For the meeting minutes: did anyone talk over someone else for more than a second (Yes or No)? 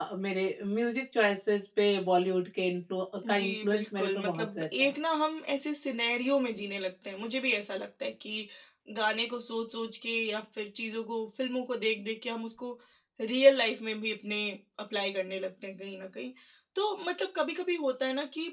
Yes